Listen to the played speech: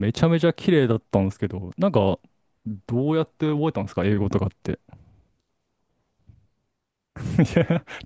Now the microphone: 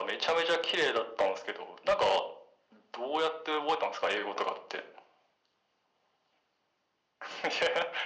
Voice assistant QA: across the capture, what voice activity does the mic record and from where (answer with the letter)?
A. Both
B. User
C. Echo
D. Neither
C